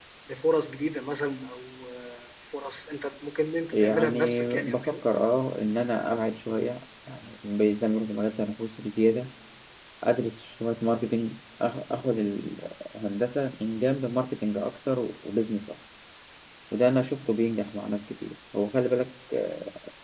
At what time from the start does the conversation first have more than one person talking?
3.7 s

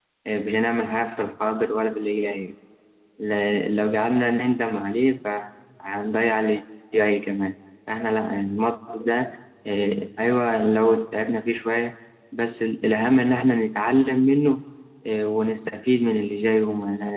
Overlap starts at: none

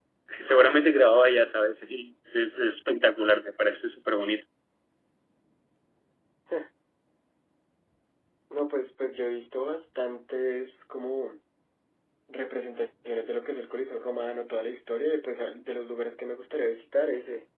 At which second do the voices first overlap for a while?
none

